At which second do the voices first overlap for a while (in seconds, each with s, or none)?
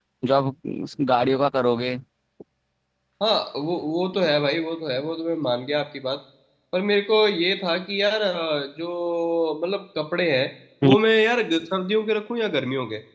none